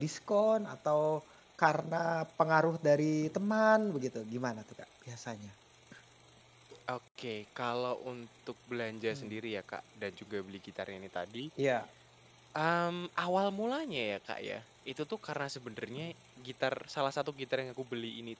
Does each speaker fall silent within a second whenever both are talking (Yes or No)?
Yes